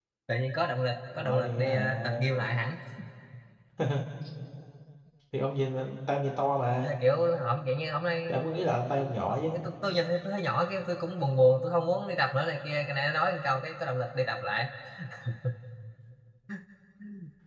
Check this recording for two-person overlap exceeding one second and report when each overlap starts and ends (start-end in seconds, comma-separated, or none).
1.2-2.5